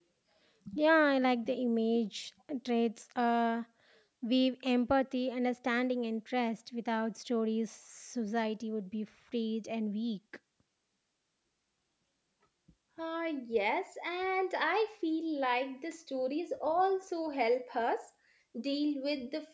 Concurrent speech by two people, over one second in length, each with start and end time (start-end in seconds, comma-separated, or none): none